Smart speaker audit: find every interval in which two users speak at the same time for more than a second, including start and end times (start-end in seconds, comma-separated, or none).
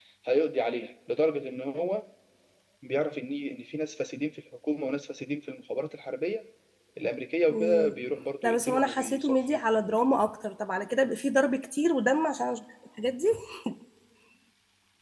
8.4-9.9